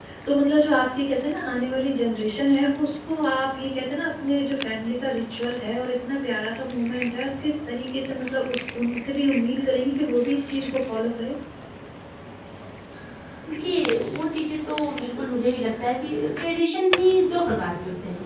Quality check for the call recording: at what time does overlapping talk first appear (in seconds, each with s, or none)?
none